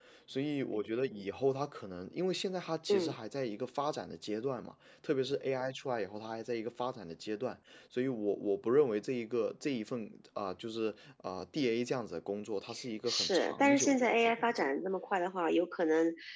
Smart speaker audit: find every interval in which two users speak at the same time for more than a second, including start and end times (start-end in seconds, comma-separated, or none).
13.1-14.7